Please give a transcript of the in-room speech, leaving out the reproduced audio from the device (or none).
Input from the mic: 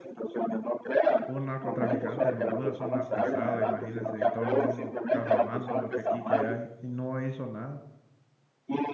un narcotraficante en Honduras, un narcoestado, imagínense, y todo el mundo cafamando lo que aquí que hay, y no hizo nada.